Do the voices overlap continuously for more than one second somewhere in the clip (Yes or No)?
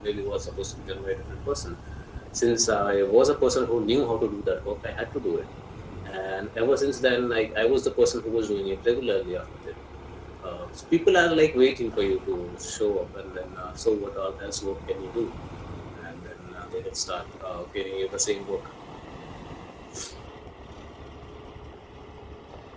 No